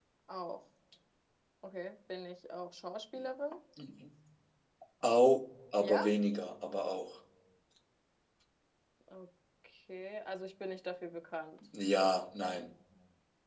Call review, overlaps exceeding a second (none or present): none